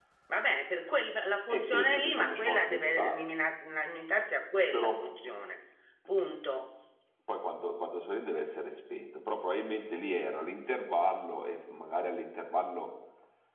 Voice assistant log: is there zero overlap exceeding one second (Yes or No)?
No